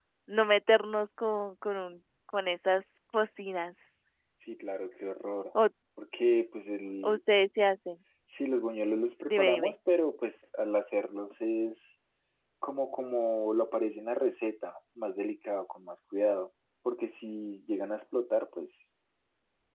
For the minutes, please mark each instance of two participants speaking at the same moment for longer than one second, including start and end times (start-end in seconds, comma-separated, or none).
none